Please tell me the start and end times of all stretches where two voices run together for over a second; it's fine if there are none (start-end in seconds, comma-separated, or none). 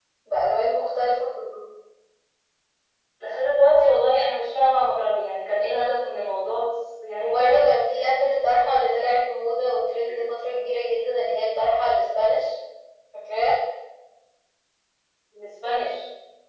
none